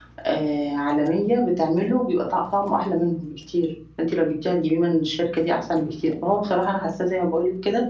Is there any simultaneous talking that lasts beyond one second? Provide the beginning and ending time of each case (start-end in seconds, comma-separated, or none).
none